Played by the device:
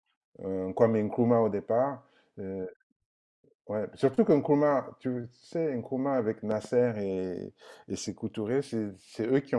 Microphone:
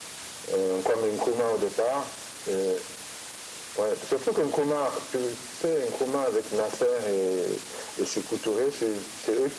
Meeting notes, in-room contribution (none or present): none